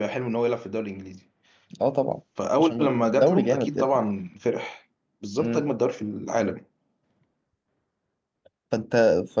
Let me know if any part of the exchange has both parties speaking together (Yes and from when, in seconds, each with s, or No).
Yes, from 2.6 s